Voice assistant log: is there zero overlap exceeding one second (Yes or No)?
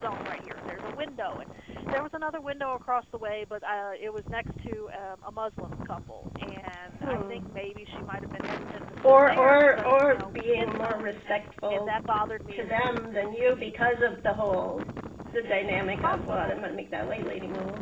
No